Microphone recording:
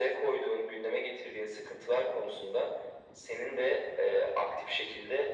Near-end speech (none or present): none